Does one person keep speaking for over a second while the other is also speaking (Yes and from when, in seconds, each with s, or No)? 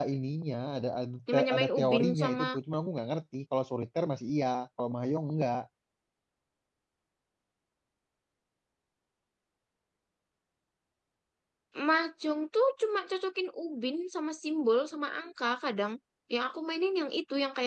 Yes, from 1.3 s